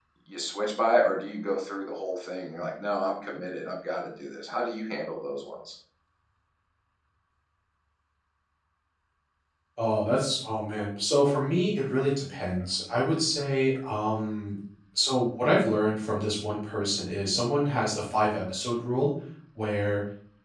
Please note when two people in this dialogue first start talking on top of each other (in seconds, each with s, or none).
none